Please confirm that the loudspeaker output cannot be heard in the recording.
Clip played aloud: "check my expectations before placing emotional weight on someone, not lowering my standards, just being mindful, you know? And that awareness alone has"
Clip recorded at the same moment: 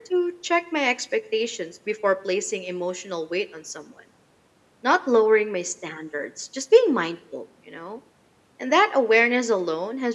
No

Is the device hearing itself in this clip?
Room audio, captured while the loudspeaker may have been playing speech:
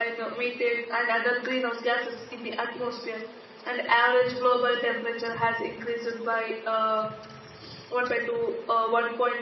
No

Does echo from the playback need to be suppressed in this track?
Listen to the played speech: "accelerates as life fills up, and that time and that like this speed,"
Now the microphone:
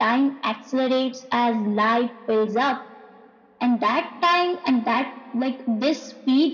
Yes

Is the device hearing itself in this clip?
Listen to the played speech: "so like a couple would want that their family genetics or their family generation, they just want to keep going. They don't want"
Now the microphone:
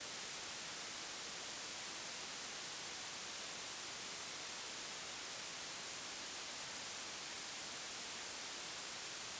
No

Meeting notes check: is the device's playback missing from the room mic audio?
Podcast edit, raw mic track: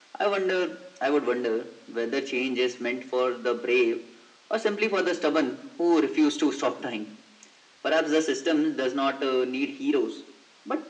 No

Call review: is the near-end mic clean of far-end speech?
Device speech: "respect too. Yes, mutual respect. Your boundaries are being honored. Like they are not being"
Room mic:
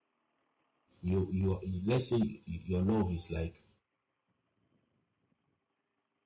Yes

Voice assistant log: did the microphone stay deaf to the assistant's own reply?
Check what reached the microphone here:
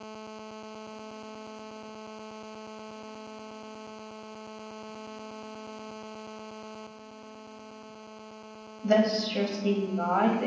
Yes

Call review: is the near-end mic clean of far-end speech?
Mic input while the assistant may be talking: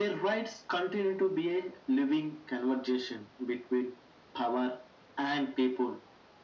No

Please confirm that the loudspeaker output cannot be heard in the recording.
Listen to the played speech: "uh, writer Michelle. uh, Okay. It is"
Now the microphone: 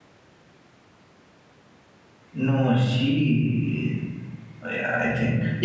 Yes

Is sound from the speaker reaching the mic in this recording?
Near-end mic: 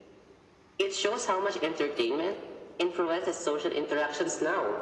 Yes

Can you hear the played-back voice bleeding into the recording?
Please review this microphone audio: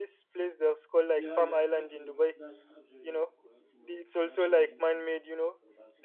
Yes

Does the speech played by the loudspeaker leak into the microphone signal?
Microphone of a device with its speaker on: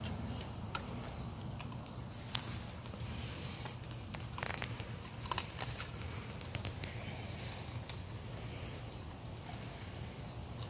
No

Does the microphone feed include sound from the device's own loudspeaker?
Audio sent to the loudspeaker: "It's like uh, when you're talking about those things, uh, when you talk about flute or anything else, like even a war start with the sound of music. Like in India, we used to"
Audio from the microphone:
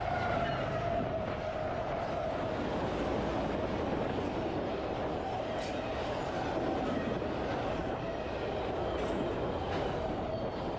No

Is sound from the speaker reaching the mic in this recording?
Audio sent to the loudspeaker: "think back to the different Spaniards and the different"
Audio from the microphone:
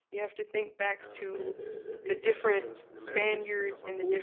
Yes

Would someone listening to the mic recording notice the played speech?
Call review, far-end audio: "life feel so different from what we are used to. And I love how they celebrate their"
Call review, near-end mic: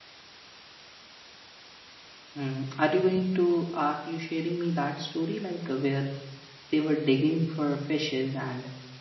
No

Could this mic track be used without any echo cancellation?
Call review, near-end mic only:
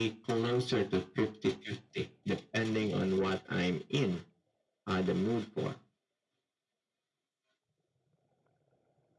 No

